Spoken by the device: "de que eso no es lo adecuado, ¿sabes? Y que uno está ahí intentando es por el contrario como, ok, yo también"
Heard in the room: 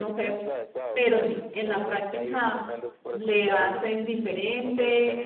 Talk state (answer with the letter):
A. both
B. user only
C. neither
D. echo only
A